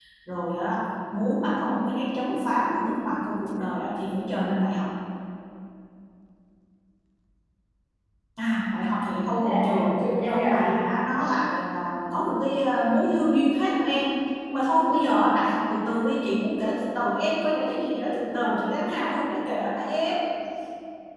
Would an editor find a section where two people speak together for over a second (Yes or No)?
Yes